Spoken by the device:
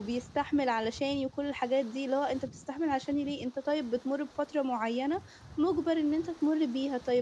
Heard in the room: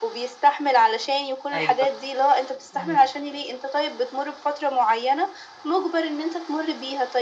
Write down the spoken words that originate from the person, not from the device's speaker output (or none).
أيوه، إمم.